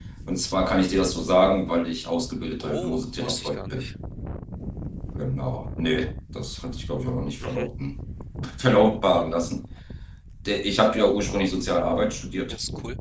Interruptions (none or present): present